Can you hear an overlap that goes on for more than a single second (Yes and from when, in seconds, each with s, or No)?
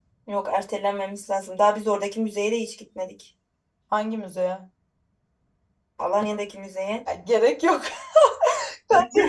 No